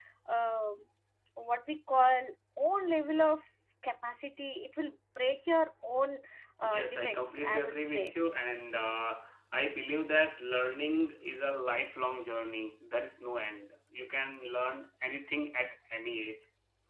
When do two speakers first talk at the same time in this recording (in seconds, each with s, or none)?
6.6 s